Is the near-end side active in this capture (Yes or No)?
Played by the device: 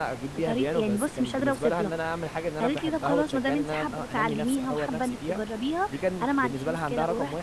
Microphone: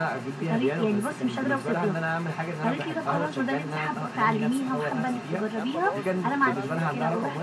Yes